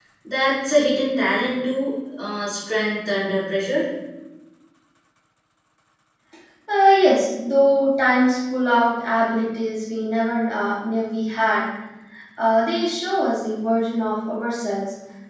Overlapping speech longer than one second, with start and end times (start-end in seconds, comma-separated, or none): none